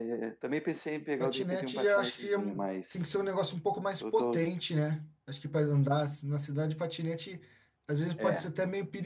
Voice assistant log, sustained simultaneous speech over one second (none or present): present